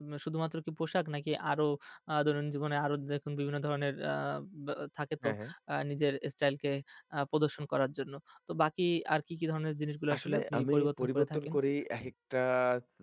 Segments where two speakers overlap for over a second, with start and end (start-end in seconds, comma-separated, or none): 10.1-11.5